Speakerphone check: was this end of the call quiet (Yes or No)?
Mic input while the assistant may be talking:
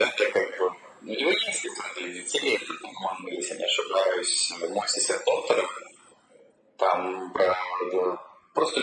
Yes